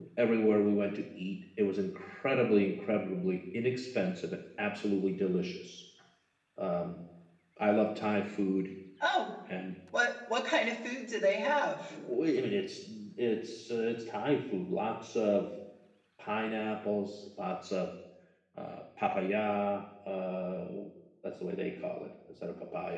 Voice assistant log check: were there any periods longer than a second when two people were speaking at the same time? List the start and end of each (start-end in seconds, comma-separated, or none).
none